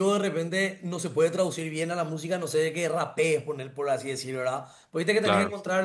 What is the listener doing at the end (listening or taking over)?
listening